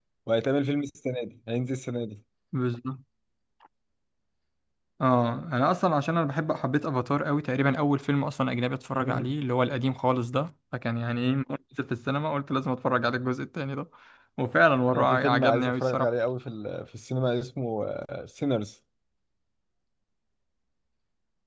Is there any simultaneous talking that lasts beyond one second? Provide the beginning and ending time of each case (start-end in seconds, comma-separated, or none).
14.9-16.1